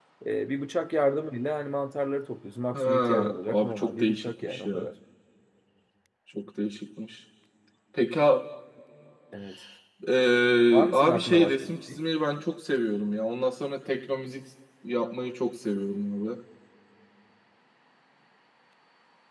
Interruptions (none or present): present